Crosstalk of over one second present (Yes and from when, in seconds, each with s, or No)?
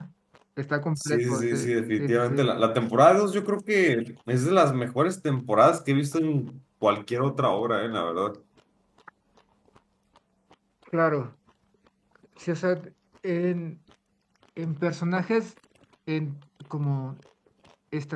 Yes, from 1.0 s